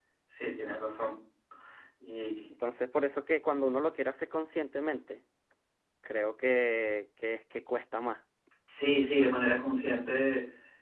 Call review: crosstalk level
none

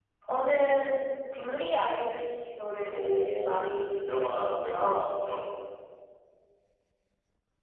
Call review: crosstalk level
present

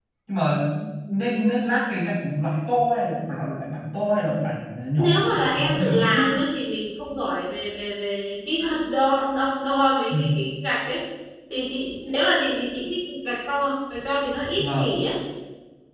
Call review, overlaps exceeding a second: present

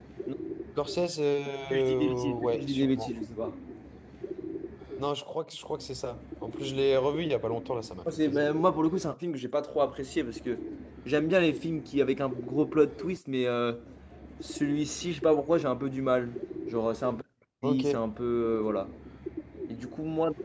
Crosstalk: present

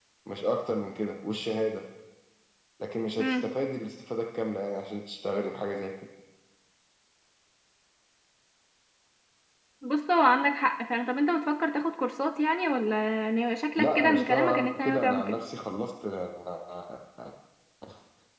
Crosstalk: present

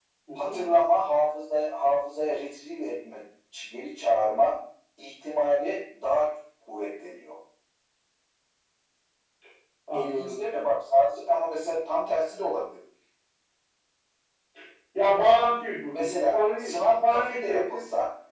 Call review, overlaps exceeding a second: present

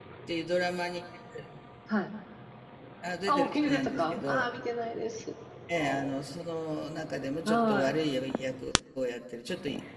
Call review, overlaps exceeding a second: present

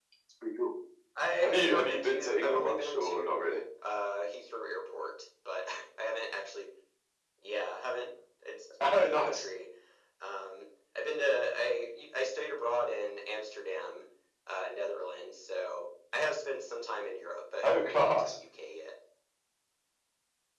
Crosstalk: present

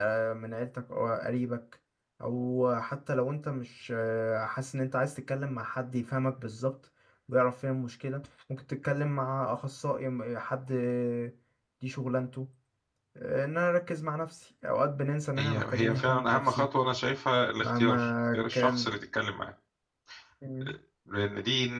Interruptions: present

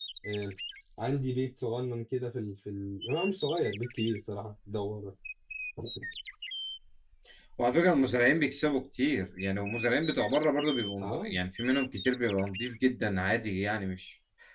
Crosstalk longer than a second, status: none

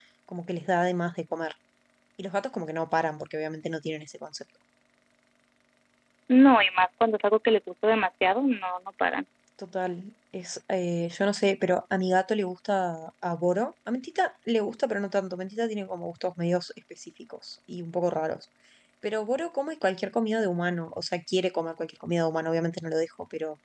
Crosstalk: none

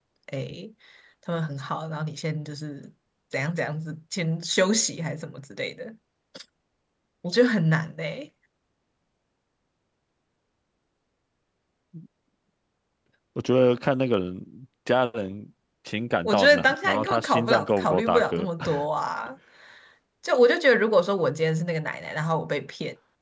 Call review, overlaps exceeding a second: present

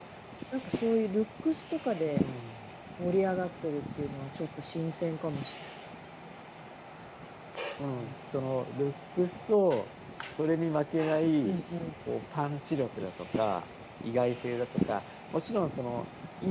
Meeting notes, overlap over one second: none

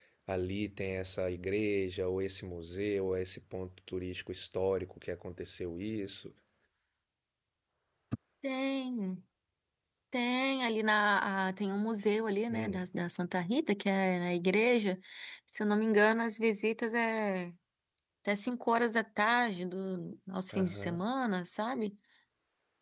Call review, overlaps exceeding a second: none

